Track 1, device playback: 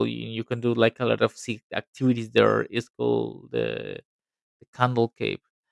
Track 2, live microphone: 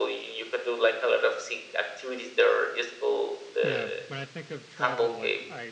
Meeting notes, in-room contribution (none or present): present